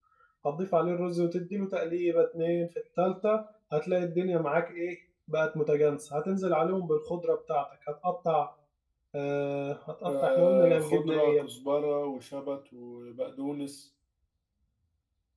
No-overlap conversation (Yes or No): No